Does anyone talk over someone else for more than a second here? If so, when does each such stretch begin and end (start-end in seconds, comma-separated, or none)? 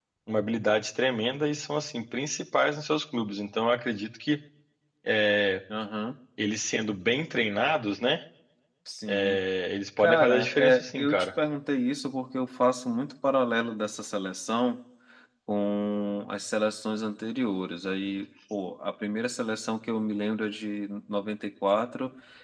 10.0-11.3